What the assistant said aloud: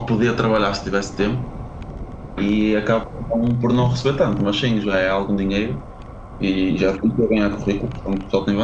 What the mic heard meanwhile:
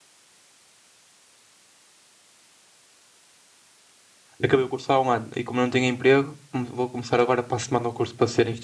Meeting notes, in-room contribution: present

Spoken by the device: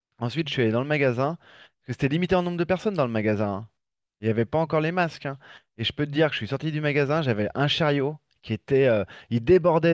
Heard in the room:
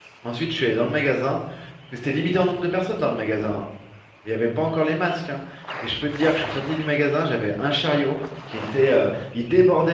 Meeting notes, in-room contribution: none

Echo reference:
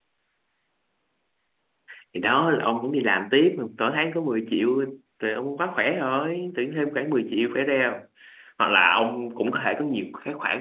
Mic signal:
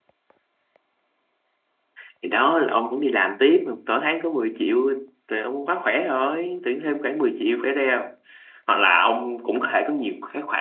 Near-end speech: none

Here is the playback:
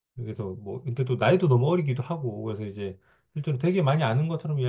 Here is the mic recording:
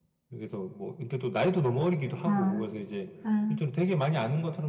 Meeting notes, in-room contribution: present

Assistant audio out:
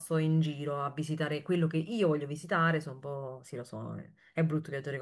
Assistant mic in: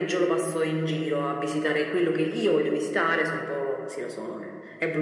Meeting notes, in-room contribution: none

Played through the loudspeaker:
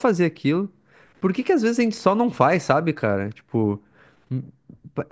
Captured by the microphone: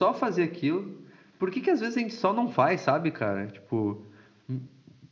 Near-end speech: none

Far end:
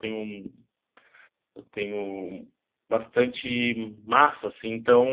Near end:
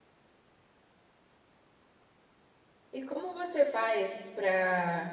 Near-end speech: present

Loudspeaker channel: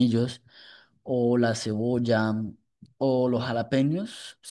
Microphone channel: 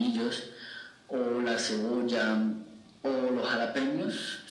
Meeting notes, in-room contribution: none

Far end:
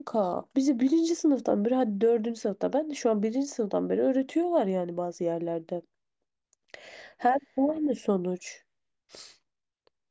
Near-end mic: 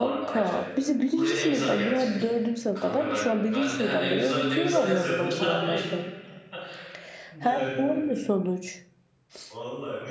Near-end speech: present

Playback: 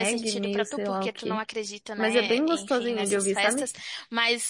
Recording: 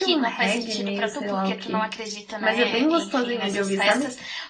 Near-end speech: none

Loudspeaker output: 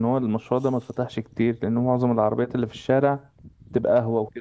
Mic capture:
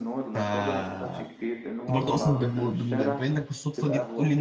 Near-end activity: present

